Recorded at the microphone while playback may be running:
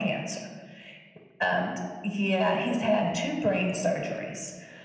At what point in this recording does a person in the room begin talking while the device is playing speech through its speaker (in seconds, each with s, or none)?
none